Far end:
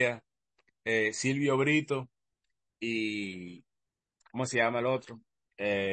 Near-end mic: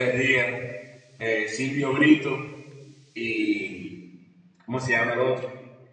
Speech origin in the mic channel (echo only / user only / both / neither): echo only